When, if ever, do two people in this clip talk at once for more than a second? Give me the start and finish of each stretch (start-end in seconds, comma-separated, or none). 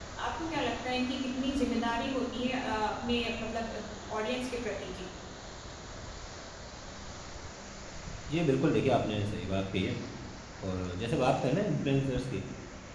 none